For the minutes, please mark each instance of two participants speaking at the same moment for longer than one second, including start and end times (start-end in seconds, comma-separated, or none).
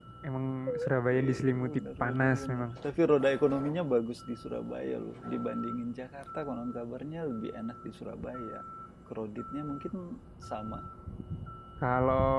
1.1-2.6